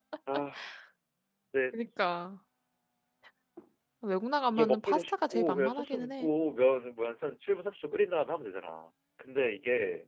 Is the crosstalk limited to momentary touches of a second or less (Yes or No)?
No